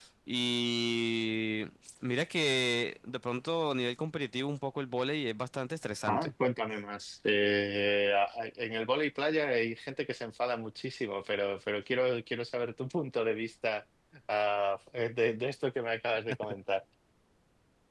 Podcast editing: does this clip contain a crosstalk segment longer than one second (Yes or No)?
No